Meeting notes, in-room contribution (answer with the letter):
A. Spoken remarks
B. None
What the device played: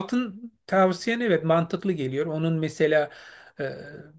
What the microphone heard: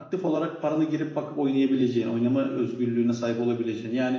A